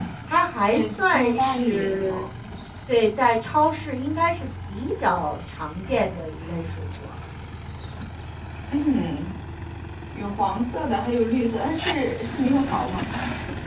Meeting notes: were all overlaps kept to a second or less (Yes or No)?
No